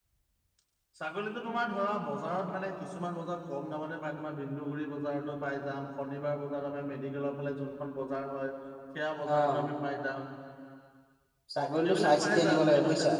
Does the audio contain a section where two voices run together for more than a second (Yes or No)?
Yes